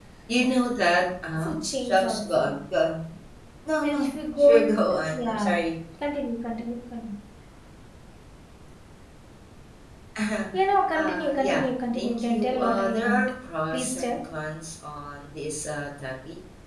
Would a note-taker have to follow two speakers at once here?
Yes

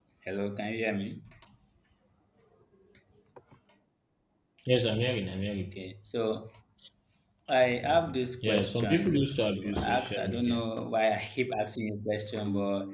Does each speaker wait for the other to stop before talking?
No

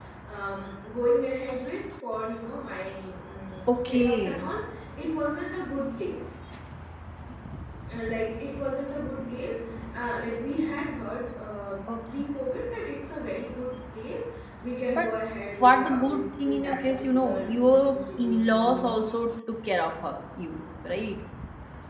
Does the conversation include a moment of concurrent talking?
Yes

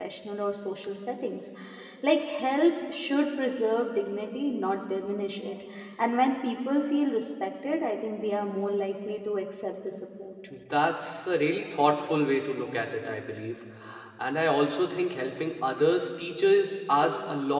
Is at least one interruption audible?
No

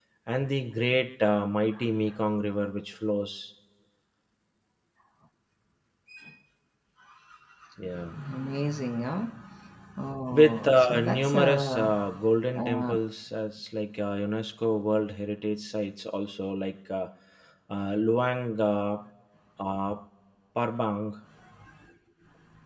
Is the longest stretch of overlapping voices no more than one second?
No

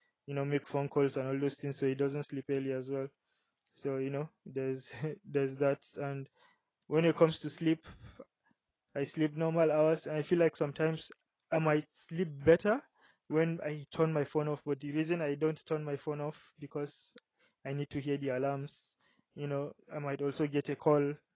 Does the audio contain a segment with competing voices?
No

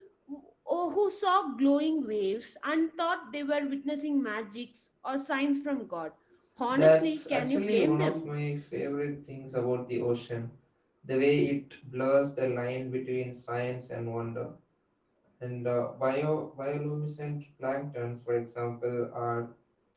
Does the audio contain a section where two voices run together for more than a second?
Yes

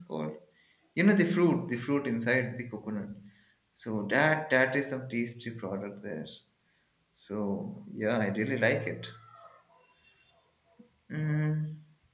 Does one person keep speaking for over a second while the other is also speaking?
No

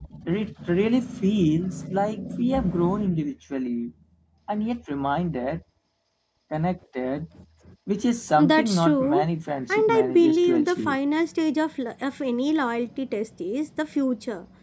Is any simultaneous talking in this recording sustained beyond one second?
Yes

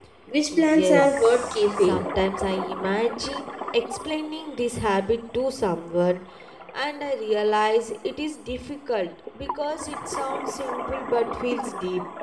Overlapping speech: Yes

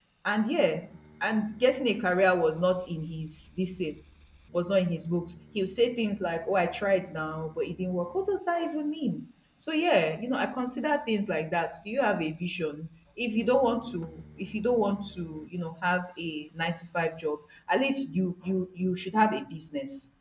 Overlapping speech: No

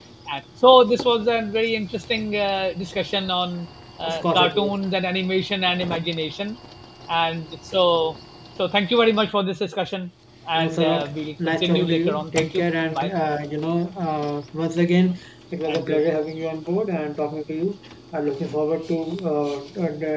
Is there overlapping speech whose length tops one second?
Yes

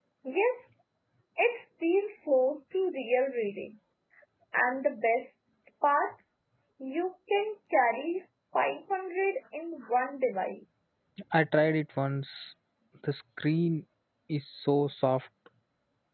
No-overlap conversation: Yes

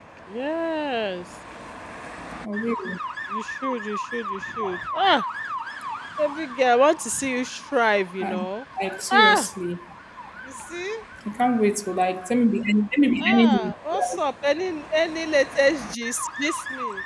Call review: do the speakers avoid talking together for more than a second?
Yes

